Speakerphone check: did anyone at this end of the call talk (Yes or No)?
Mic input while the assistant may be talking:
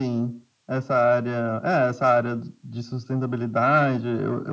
No